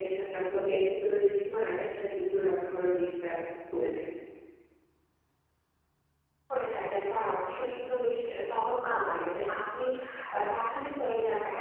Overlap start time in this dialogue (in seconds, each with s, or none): none